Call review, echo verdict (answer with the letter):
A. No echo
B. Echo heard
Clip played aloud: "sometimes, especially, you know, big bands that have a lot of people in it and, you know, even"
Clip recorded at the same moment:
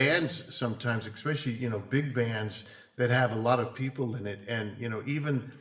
B